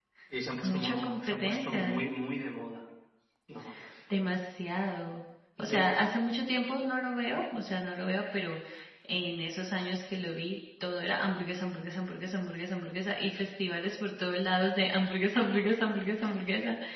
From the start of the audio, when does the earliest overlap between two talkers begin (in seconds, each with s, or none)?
0.6 s